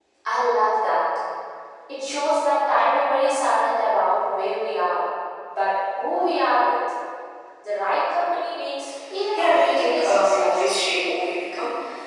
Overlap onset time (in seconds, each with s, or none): 9.4 s